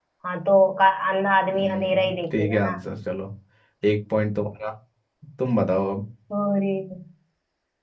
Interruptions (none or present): present